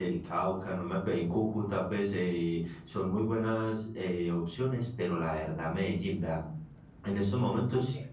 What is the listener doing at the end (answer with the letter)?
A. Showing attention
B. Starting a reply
A